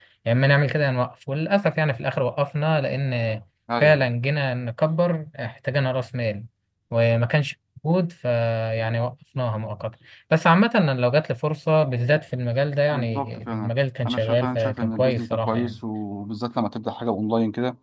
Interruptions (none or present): present